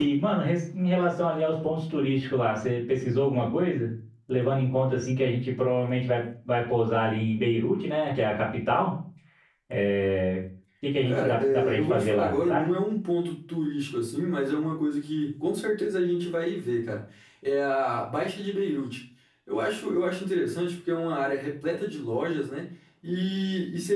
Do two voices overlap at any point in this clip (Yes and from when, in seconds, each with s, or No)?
Yes, from 11.1 s